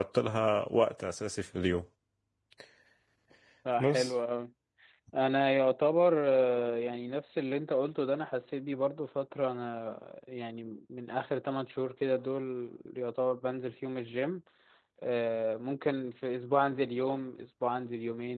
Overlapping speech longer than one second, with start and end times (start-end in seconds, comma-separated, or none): none